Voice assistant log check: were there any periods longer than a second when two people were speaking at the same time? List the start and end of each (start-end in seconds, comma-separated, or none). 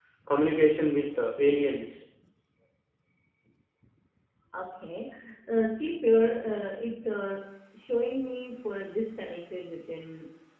none